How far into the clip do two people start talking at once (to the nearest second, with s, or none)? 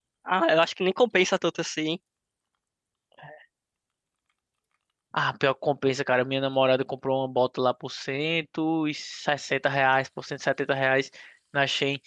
none